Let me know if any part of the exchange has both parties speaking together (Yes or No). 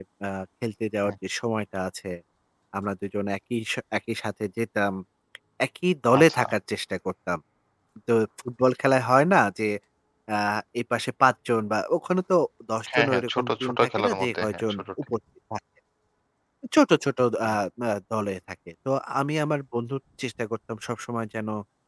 Yes